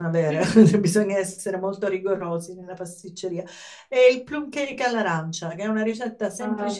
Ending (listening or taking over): listening